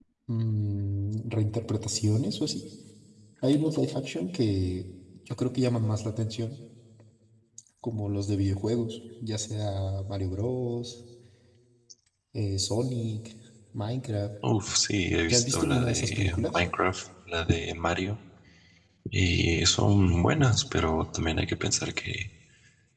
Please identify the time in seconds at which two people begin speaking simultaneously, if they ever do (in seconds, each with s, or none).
15.3 s